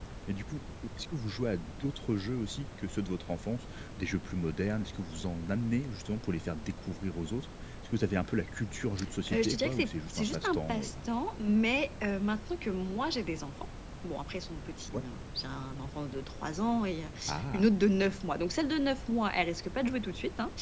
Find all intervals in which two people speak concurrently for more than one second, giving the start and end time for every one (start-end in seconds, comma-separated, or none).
9.3-10.9